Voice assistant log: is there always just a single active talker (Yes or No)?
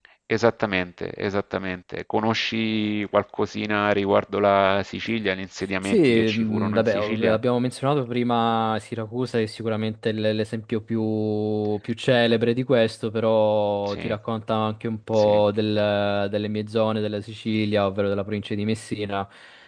No